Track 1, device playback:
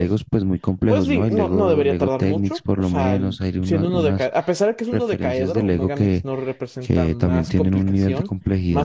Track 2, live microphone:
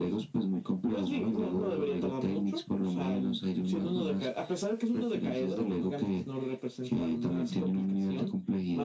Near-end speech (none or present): none